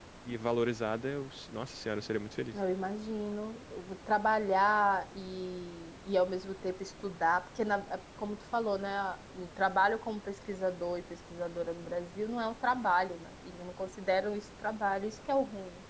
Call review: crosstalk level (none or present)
none